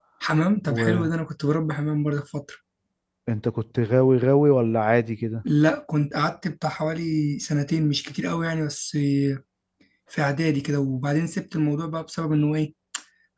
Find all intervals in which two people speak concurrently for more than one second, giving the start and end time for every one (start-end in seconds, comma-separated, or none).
none